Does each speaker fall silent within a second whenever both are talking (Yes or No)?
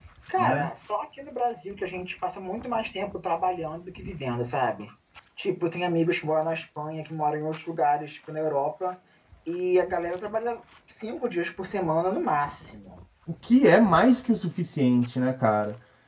Yes